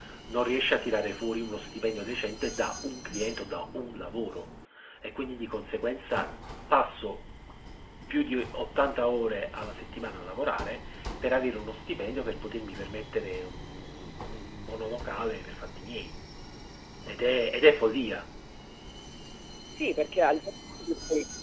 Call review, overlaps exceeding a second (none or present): none